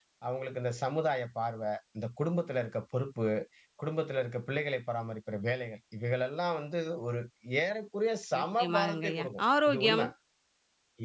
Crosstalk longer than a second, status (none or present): present